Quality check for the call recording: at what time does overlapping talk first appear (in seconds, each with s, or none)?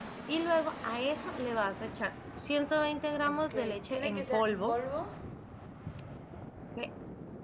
3.2 s